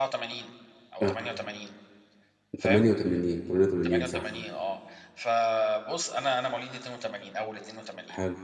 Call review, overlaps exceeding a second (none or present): none